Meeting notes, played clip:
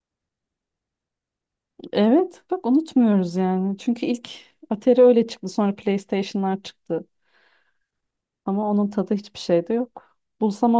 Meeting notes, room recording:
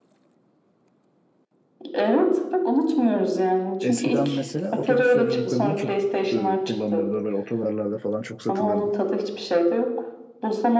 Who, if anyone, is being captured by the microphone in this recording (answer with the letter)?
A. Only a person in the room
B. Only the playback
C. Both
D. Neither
C